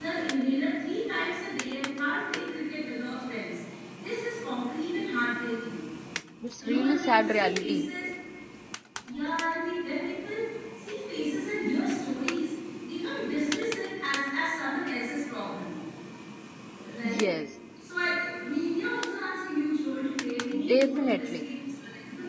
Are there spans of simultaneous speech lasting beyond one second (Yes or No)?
Yes